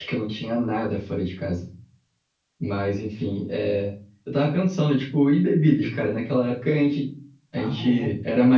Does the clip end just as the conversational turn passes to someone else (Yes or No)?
No